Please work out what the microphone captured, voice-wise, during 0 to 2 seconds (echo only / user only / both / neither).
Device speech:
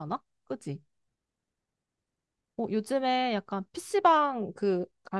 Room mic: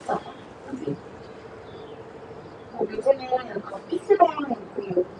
echo only